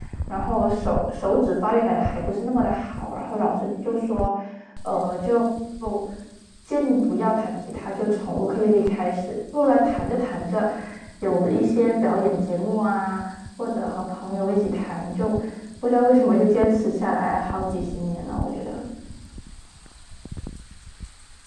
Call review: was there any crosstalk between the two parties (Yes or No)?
No